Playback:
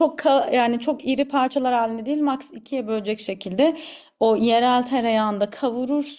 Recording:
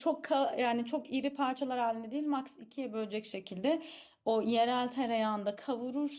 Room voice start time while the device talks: none

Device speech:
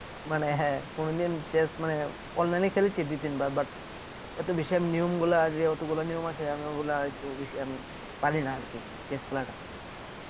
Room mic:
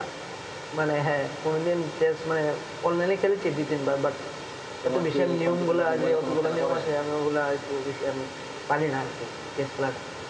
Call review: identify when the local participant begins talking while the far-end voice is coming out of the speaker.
4.8 s

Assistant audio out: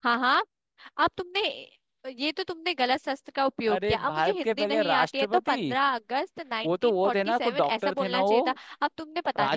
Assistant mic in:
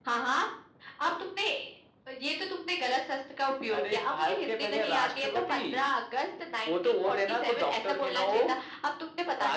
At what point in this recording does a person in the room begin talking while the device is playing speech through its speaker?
none

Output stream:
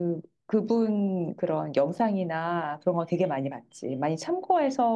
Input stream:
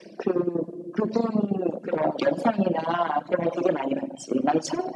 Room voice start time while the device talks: none

